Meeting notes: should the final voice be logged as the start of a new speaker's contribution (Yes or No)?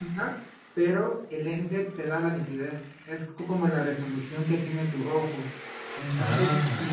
No